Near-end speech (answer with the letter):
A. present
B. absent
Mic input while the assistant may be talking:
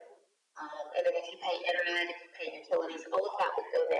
B